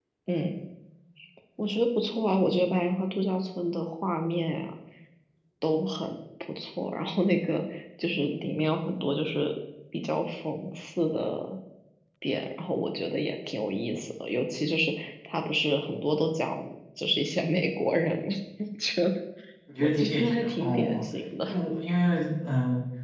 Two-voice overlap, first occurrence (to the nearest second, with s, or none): 20 s